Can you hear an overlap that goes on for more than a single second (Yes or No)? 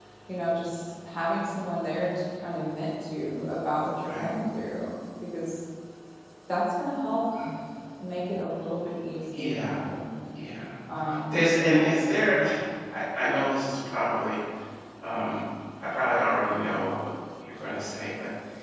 No